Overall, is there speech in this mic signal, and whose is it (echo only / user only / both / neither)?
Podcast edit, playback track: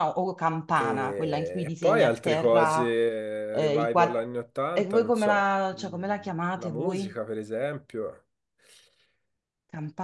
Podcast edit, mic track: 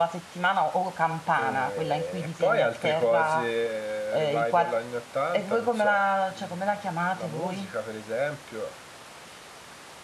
echo only